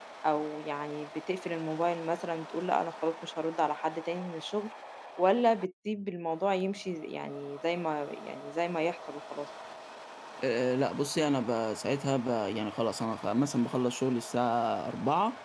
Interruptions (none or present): none